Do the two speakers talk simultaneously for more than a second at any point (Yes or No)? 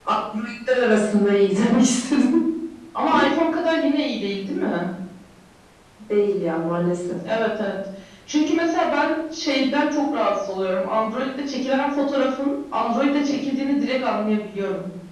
No